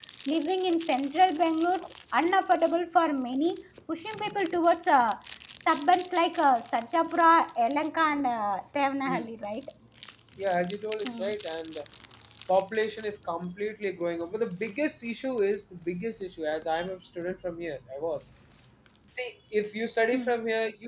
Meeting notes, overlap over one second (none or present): none